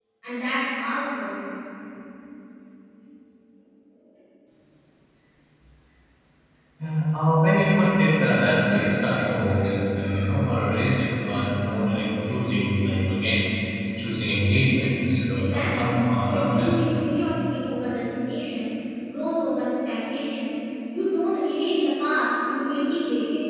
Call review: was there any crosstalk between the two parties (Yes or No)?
Yes